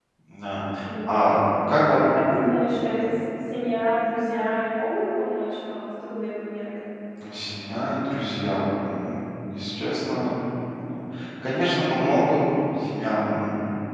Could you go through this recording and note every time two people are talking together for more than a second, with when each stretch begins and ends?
none

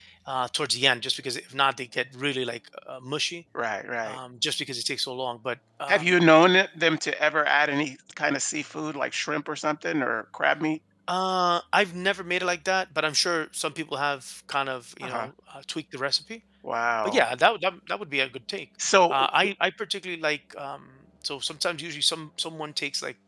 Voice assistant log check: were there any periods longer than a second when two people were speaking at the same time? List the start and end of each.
none

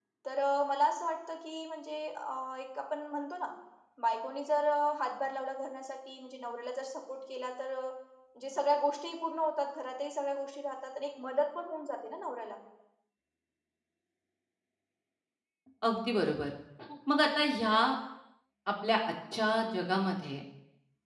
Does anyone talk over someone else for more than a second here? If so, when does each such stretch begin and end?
none

